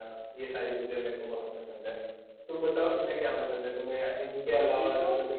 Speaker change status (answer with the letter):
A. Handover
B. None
B